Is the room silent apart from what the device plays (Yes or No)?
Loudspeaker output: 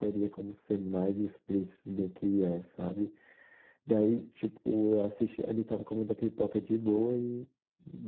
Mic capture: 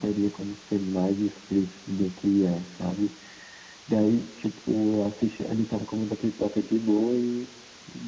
Yes